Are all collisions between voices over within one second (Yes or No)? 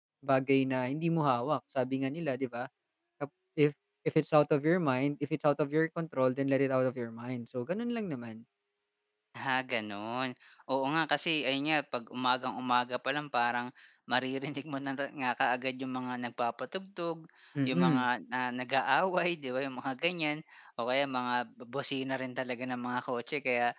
Yes